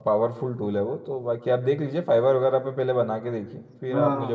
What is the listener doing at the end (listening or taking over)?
taking over